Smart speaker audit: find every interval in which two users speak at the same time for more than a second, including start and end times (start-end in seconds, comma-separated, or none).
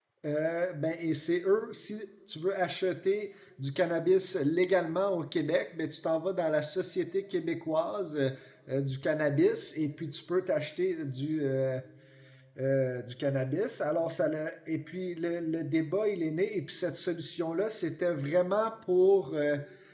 none